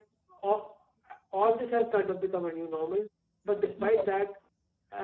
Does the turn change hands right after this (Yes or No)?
No